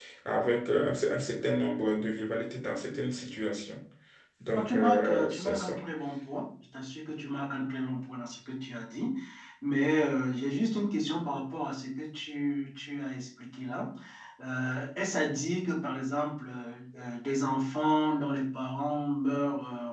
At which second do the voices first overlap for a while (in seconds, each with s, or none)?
4.5 s